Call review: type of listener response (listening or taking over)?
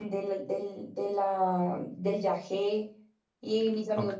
listening